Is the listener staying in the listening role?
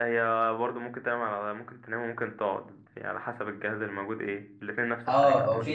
No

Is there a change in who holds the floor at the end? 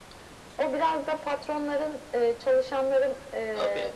No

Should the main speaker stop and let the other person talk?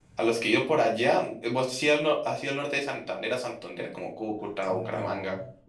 Yes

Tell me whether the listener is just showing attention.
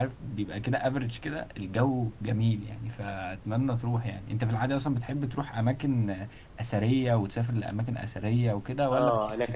No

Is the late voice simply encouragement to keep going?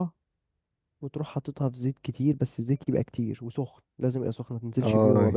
No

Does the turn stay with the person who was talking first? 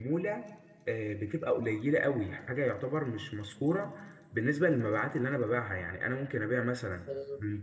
Yes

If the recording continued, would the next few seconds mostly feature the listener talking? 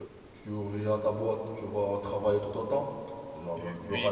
Yes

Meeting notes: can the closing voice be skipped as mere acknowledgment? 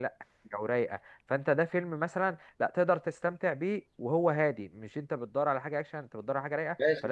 No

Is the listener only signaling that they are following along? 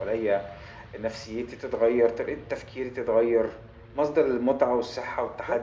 Yes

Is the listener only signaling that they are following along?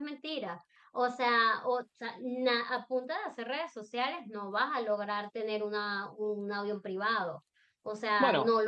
Yes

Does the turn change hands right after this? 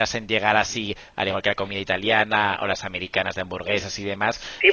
Yes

